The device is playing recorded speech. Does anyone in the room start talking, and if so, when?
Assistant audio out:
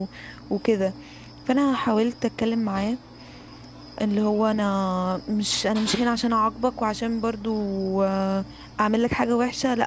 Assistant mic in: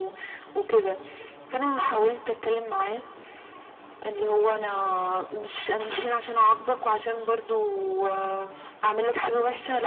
none

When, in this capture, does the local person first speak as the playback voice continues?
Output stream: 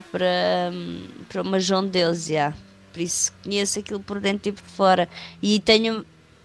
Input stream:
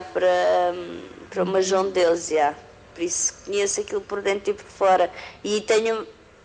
1.3 s

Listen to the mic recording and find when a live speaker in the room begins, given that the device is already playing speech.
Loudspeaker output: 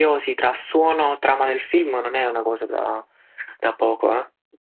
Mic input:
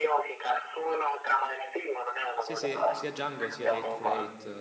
2.4 s

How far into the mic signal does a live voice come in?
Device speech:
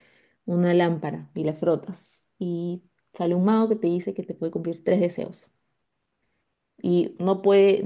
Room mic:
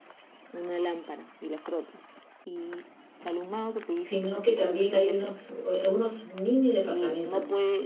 3.9 s

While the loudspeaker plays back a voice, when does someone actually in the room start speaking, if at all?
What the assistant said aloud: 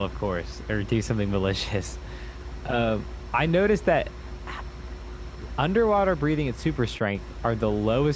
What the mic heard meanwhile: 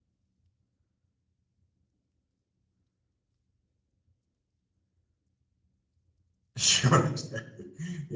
6.6 s

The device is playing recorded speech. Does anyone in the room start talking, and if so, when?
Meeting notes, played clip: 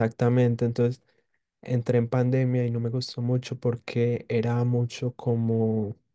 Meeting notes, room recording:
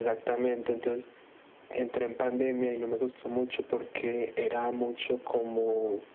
none

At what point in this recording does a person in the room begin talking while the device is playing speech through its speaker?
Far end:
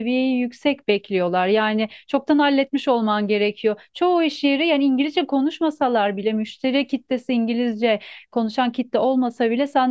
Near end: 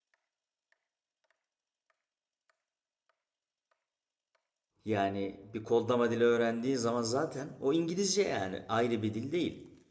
4.8 s

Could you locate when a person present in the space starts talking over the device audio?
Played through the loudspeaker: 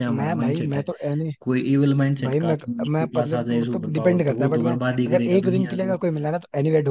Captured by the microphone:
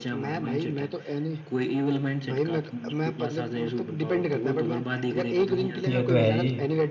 5.9 s

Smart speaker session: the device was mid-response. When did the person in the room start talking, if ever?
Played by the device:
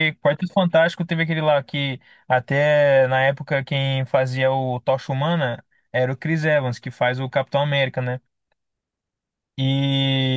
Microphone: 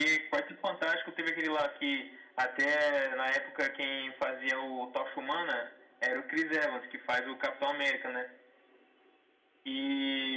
none

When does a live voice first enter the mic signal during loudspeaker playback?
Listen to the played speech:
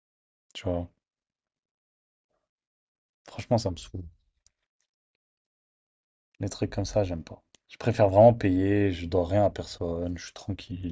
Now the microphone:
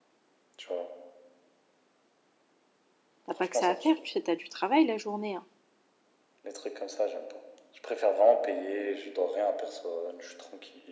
3.3 s

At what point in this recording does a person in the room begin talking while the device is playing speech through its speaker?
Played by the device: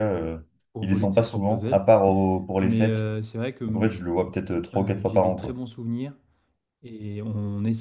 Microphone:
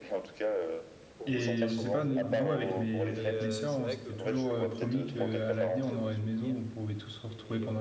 1.3 s

